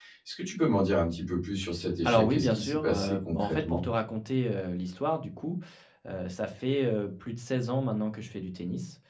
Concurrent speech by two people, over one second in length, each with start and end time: 2.0-3.8

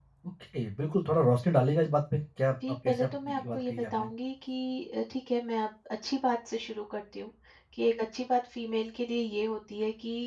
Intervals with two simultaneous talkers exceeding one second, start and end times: 2.7-4.1

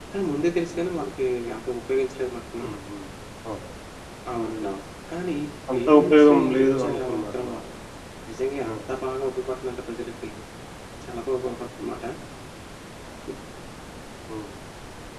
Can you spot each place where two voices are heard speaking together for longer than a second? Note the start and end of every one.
5.7-7.4

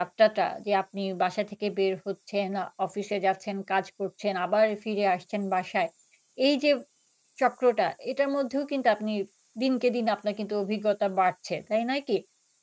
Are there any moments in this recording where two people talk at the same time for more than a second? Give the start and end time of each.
none

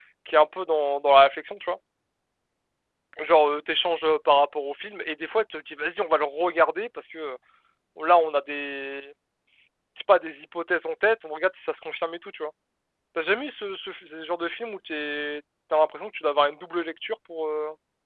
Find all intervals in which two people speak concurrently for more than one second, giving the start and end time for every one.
none

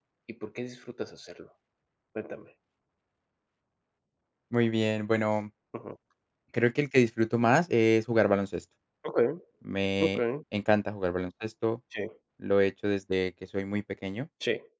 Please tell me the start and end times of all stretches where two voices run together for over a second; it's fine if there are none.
none

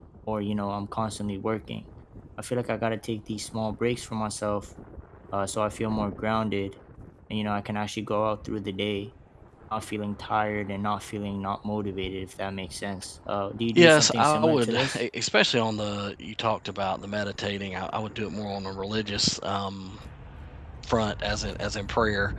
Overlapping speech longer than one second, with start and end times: 13.7-15.0

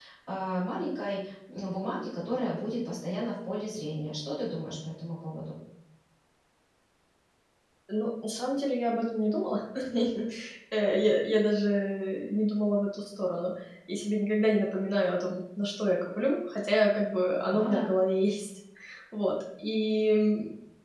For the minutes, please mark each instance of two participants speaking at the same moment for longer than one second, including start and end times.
none

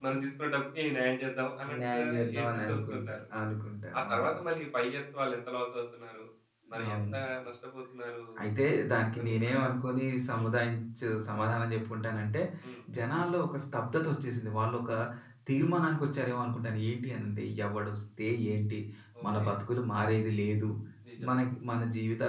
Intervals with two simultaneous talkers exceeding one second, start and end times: 1.9-3.2

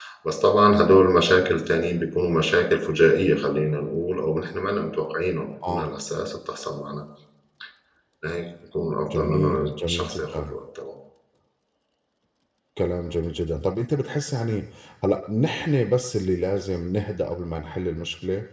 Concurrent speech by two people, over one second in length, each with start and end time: 9.1-10.6

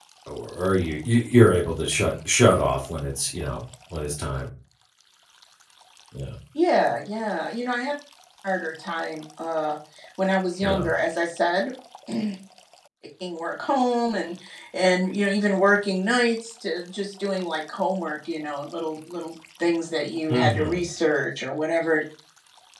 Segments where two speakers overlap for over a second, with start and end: none

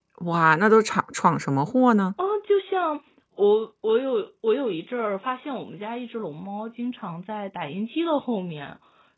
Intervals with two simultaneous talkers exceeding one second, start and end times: none

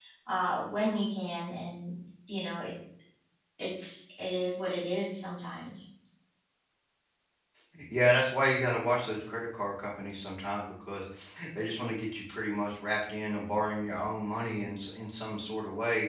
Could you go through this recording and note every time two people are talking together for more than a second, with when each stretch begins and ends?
none

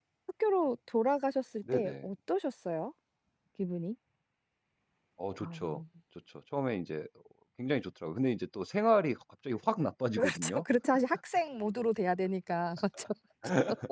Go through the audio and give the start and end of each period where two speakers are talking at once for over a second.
none

